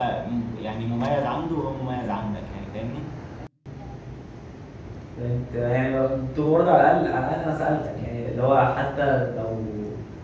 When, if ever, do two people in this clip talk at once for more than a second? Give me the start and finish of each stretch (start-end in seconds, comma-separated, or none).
none